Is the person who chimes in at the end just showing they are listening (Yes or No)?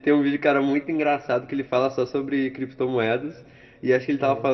Yes